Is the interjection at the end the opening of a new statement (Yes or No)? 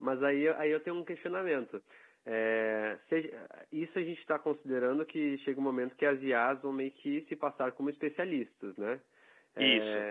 No